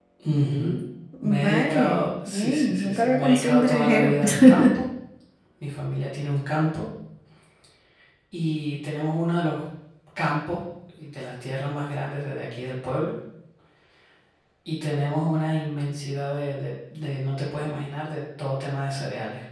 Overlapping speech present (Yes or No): Yes